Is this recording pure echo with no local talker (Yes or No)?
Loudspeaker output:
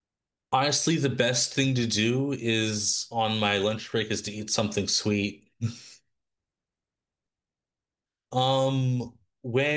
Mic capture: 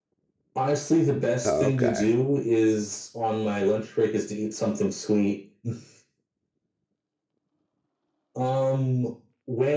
No